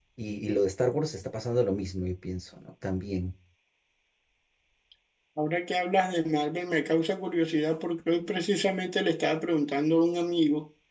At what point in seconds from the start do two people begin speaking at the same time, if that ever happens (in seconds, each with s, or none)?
none